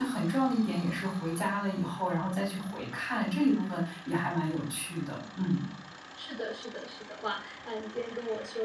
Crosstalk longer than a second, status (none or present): none